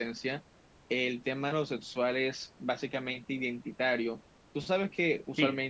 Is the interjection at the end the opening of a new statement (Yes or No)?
No